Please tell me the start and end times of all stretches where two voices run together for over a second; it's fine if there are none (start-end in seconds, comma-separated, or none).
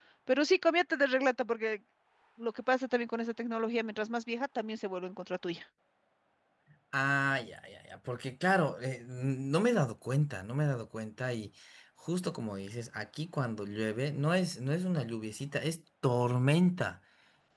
none